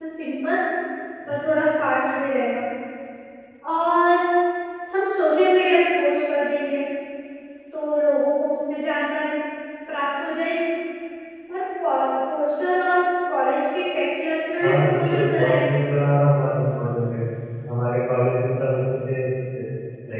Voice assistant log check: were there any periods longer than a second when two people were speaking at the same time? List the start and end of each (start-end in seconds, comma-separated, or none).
14.6-15.8